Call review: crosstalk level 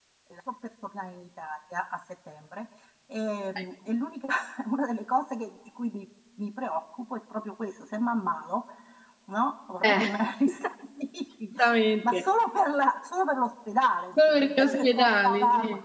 present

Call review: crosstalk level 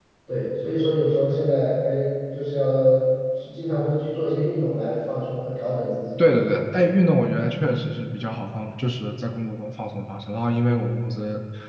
none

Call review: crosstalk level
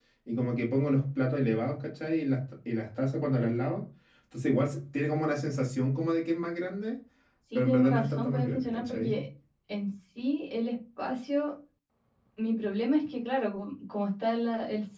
present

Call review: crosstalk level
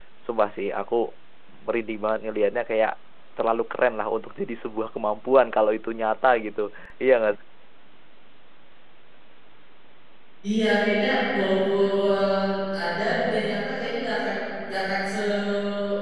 none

